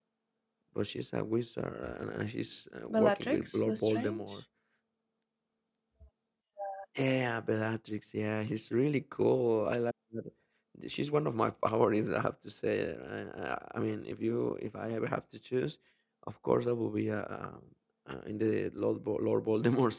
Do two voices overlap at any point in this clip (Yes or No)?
Yes